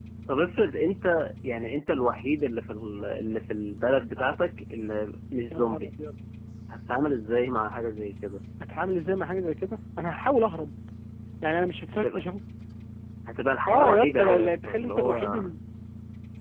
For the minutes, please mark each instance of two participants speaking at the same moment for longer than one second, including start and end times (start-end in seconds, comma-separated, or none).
13.7-15.4